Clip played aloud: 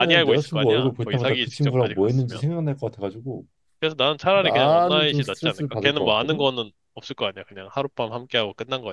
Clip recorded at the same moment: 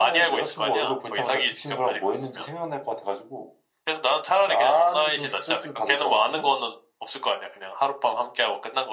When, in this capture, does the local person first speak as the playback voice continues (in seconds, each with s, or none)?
none